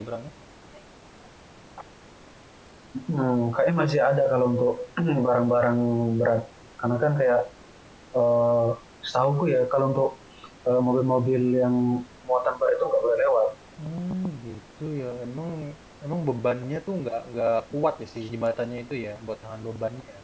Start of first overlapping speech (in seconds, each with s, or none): none